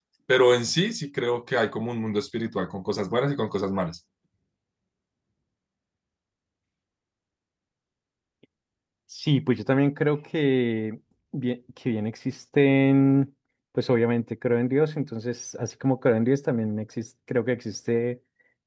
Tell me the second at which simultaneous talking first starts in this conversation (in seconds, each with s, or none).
none